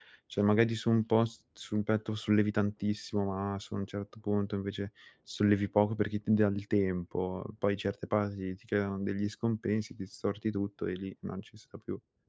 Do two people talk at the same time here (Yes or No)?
No